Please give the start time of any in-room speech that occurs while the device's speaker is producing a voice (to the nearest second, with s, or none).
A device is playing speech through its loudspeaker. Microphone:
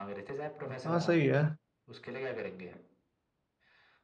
1 s